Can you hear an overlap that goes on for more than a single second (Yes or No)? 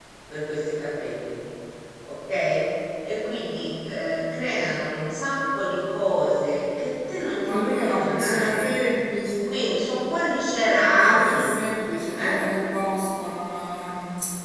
Yes